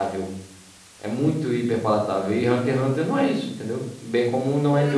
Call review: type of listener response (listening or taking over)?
taking over